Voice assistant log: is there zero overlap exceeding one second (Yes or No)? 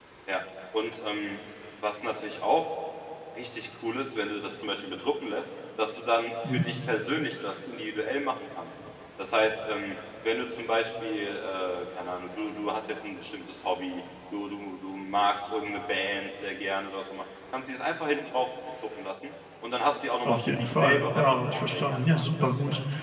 No